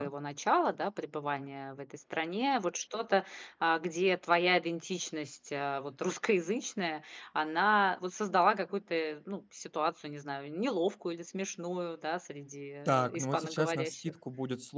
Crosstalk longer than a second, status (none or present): present